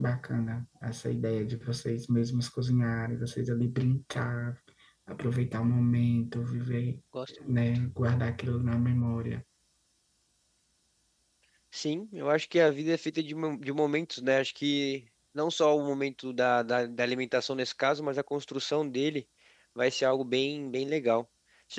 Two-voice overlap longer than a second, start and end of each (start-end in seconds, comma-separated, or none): none